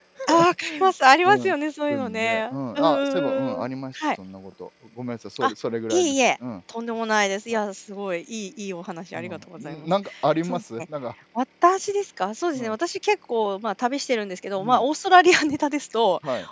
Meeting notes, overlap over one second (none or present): present